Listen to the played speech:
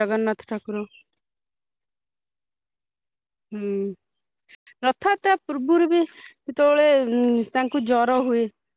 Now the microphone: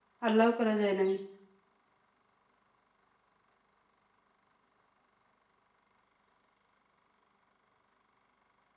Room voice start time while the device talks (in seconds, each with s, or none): 0.3 s